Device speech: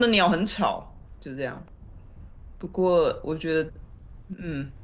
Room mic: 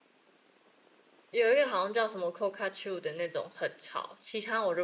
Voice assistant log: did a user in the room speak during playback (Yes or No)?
Yes